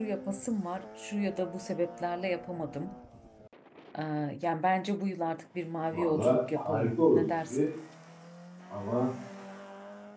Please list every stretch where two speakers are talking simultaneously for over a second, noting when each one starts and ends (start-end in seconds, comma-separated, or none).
5.9-7.7